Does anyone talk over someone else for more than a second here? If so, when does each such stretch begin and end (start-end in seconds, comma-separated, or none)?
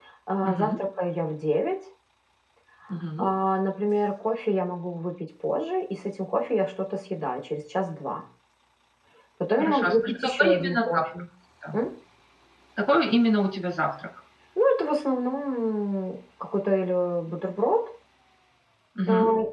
9.6-11.0